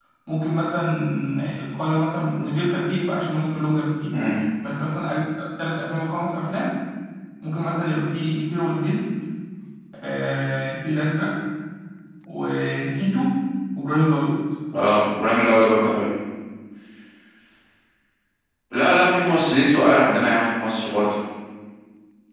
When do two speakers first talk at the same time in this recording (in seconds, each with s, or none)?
none